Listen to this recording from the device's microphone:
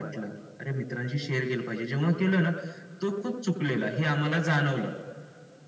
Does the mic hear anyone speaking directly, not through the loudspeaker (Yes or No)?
No